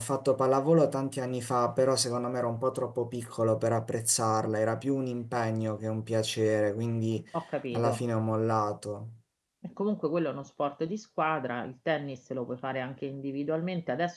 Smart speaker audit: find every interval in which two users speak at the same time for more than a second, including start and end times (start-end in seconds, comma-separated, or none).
none